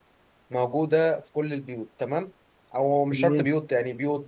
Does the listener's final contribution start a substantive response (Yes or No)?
No